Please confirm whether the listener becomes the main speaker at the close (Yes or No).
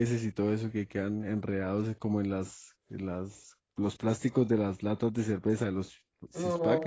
Yes